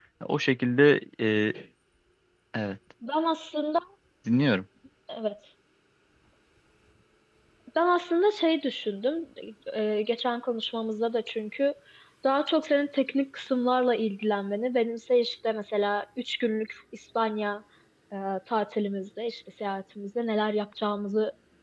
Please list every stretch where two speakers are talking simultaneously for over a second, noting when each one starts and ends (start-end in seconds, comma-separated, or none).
none